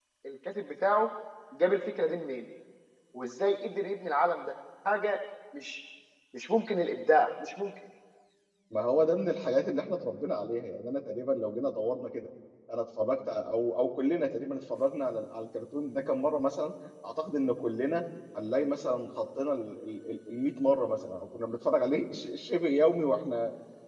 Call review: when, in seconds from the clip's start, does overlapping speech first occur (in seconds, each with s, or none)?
none